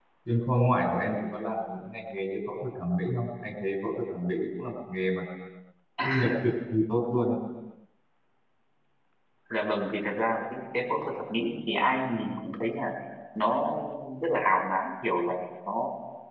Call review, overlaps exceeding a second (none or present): none